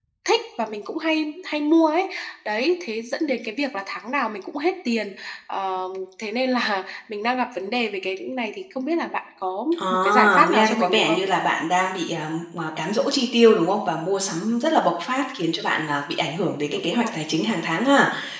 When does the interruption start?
9.8 s

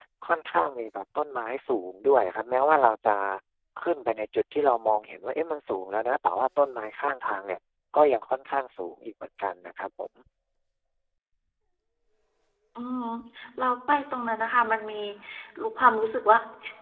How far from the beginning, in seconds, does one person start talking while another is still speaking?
none

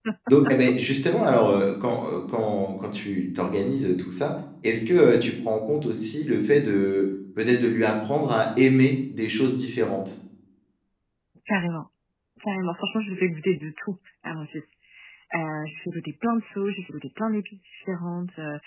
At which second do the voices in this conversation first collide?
none

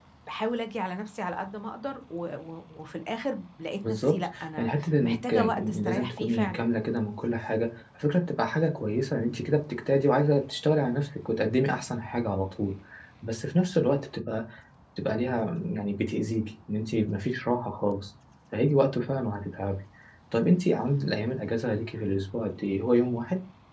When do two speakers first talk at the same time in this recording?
3.8 s

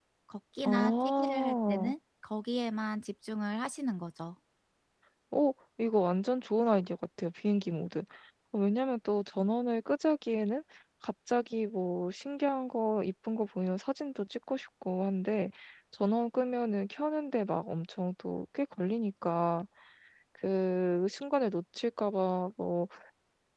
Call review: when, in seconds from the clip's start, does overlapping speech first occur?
0.6 s

